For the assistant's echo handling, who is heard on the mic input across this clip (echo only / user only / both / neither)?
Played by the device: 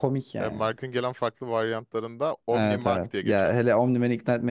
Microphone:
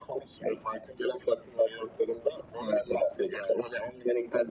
echo only